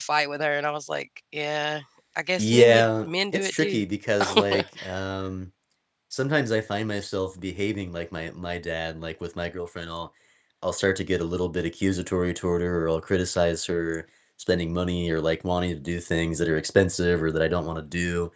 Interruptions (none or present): present